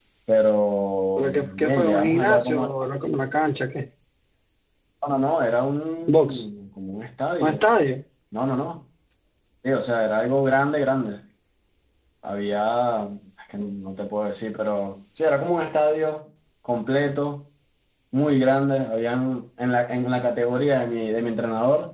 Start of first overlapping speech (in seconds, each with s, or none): 1.2 s